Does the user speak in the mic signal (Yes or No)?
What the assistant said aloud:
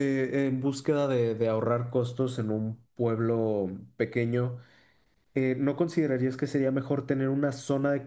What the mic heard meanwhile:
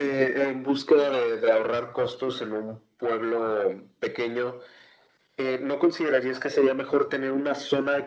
No